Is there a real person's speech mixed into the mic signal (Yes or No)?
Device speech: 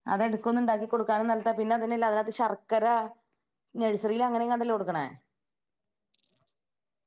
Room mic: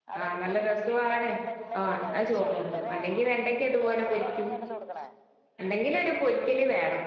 Yes